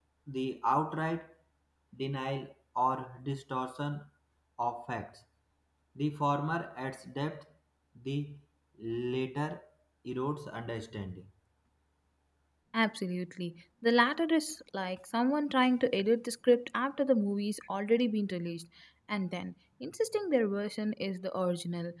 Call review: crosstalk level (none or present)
none